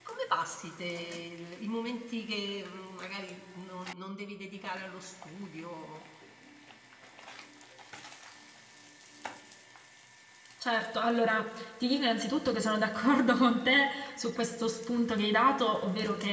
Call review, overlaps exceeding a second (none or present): none